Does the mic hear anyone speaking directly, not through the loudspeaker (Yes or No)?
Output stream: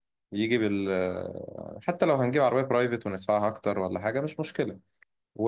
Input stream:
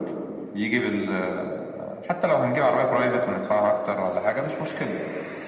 No